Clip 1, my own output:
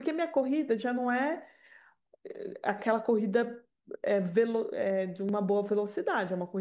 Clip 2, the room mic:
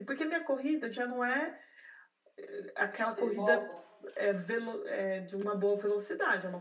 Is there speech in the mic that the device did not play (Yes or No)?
Yes